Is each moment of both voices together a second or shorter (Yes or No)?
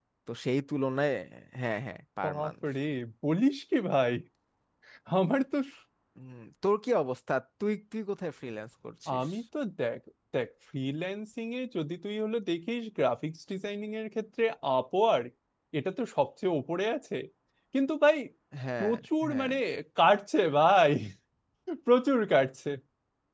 Yes